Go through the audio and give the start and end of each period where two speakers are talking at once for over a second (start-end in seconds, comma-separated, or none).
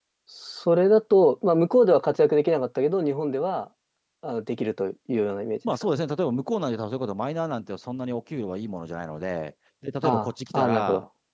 none